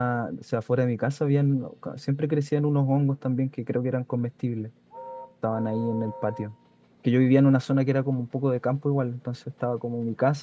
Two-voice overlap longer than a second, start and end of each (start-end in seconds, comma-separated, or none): none